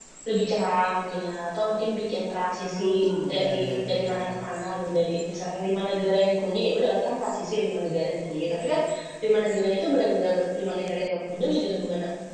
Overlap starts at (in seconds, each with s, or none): 2.6 s